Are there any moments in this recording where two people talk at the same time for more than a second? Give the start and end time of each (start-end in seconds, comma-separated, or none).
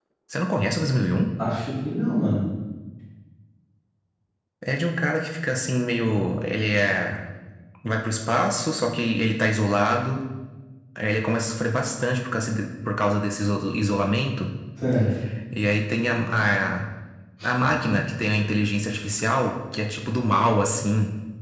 none